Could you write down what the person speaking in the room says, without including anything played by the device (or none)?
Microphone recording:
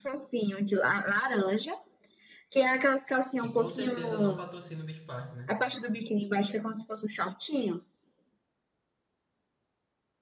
Que com certeza não patrocina o Beach Park, né?